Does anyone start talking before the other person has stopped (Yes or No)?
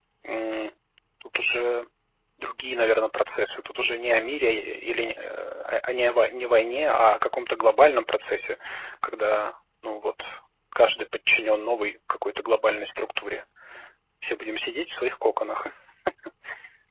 No